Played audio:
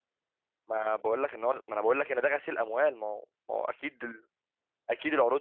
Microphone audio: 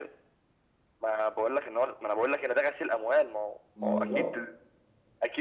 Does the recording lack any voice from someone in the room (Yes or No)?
No